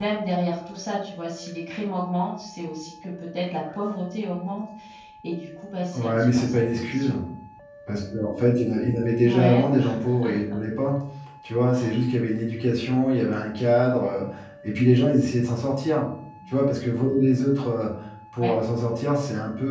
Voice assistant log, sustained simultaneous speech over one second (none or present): present